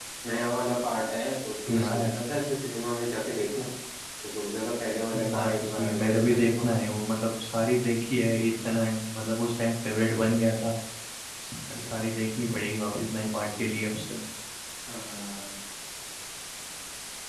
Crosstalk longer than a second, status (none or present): present